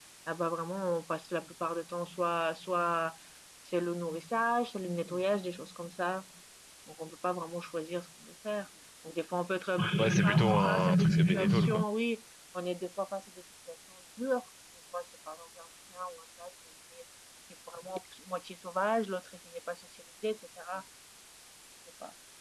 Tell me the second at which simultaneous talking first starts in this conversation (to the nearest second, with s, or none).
10 s